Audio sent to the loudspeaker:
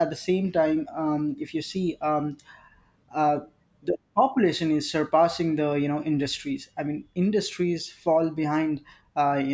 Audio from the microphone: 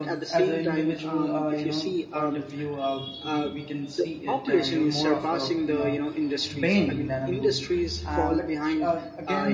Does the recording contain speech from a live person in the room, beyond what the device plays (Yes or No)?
Yes